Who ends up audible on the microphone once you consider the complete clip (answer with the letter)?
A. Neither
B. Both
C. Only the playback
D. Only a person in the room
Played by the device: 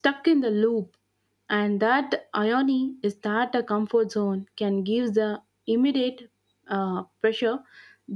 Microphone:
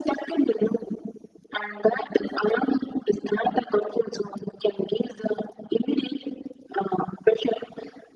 C